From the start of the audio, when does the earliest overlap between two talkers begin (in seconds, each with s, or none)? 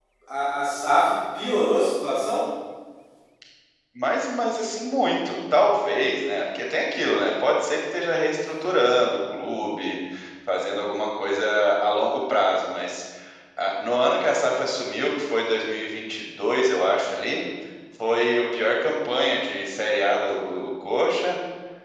none